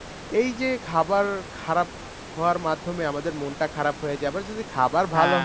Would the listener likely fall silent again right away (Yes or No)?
Yes